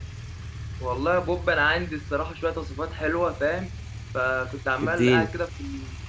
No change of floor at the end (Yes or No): Yes